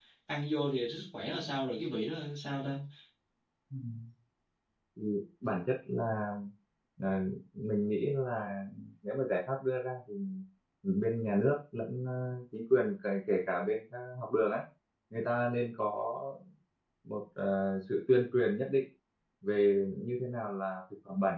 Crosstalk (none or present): none